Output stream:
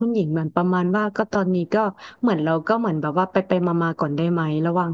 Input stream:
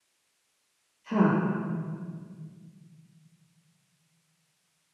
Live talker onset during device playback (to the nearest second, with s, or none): 1 s